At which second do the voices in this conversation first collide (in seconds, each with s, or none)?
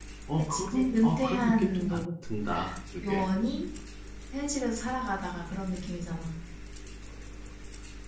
0.5 s